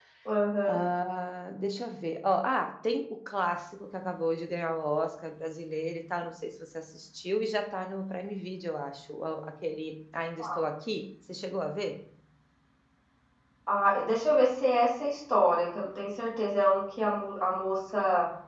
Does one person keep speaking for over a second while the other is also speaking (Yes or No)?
No